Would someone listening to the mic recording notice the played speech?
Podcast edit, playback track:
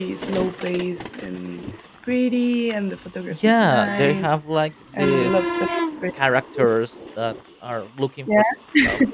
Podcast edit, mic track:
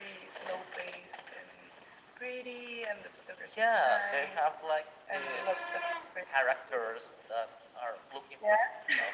Yes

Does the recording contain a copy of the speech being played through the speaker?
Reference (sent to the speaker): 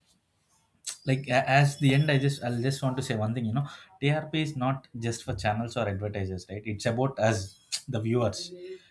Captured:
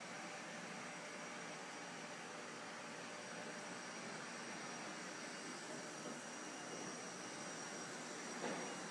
No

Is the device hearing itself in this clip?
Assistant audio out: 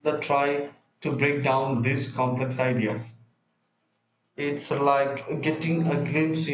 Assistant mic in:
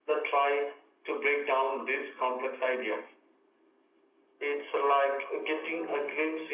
Yes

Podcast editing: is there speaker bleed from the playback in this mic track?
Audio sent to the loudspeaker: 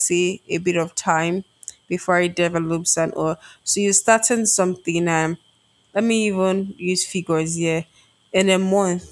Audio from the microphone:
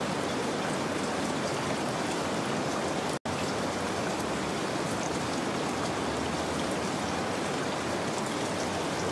No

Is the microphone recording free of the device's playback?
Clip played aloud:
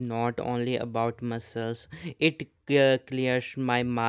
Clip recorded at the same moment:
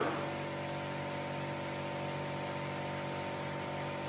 Yes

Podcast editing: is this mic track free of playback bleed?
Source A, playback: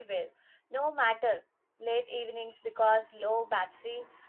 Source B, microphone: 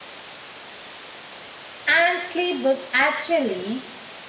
Yes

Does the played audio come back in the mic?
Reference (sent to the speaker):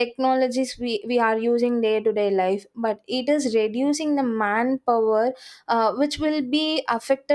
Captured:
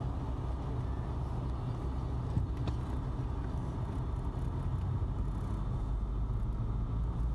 No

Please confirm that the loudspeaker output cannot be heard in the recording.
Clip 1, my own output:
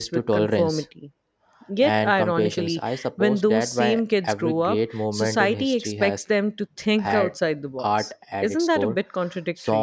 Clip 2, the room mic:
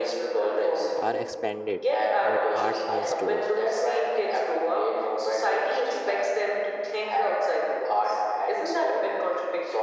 No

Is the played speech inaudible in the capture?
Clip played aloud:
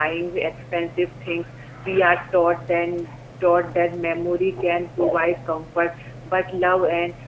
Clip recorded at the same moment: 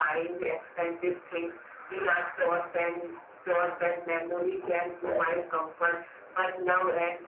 No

